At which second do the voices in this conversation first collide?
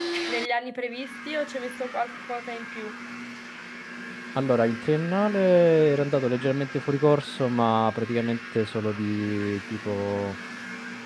none

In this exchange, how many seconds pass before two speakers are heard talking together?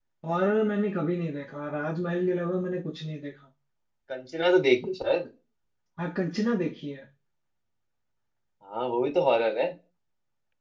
none

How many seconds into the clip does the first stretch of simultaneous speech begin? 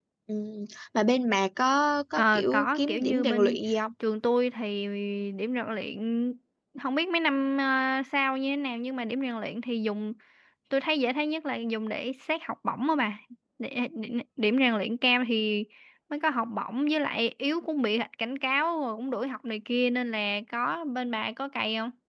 2.1 s

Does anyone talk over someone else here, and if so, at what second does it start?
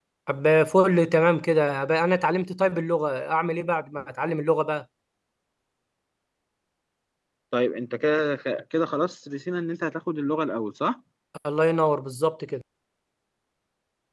none

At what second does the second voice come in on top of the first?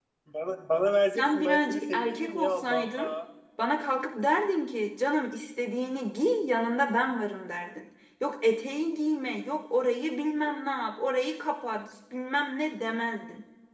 1.2 s

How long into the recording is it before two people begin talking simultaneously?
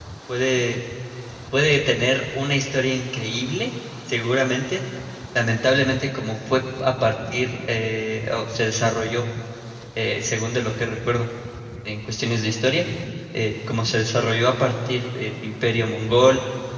none

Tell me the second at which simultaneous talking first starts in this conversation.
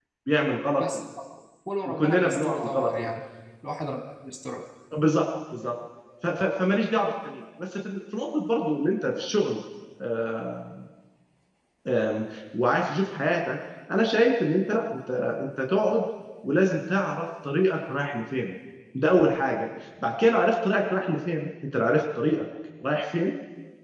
1.9 s

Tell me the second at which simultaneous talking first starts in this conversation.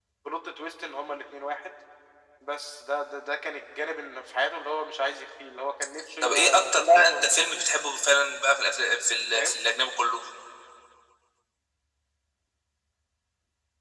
6.2 s

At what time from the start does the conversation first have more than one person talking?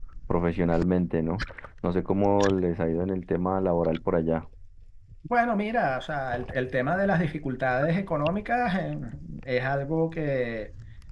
none

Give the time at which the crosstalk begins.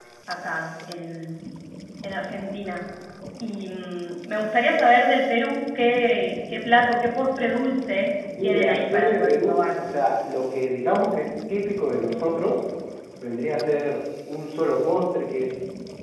8.4 s

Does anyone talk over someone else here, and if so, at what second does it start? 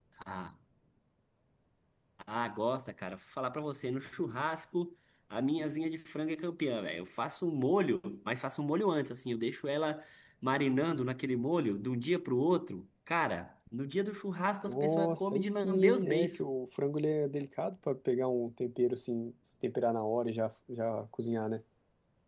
14.7 s

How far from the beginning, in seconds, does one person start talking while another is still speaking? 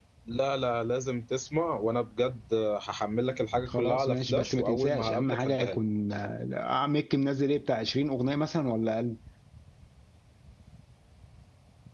3.7 s

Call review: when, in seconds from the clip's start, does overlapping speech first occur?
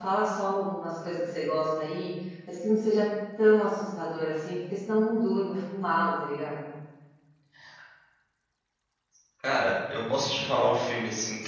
none

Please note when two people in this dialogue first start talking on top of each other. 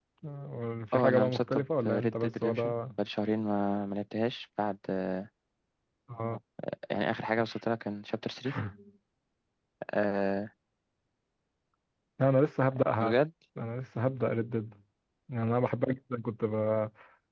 0.9 s

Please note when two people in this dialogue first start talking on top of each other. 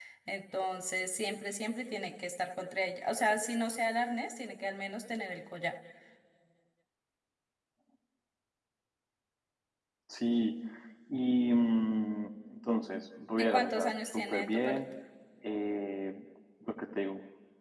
13.4 s

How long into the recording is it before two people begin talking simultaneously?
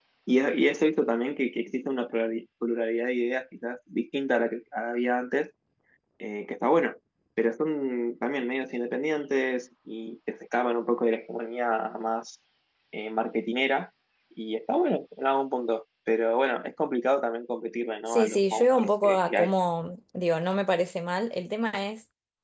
18.1 s

